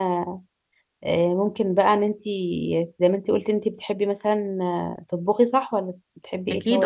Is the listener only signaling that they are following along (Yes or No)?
No